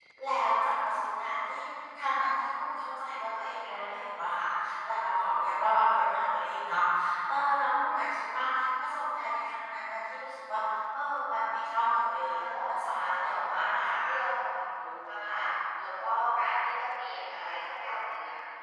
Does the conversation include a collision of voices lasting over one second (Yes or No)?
Yes